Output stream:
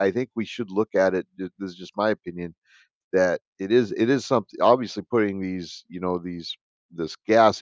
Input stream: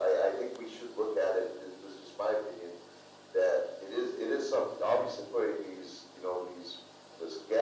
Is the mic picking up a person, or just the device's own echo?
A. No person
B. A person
A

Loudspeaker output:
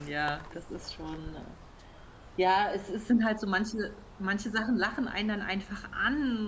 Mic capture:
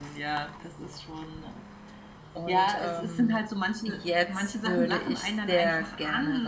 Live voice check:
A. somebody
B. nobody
A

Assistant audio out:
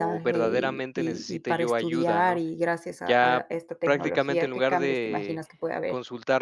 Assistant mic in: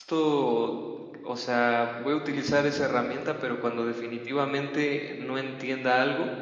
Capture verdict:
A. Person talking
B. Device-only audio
A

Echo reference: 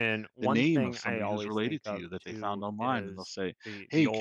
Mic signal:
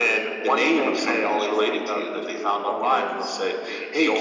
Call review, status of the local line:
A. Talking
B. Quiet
A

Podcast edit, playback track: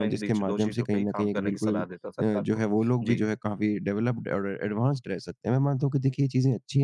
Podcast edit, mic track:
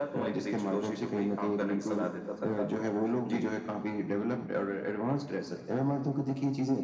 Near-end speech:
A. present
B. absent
B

